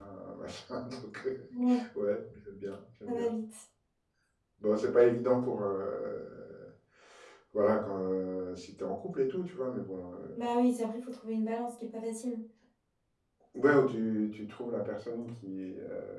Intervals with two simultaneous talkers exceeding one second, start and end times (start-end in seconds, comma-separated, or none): none